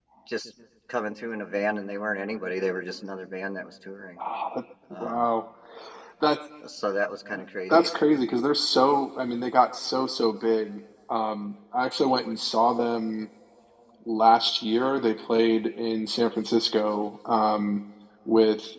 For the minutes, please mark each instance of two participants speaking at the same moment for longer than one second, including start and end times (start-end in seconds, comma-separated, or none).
none